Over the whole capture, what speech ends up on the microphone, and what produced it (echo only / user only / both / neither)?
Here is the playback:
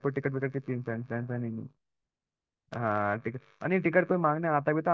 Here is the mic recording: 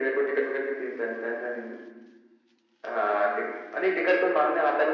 echo only